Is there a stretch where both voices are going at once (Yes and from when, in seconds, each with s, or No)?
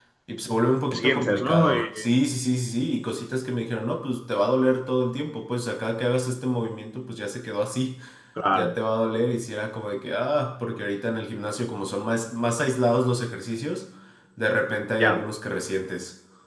Yes, from 0.9 s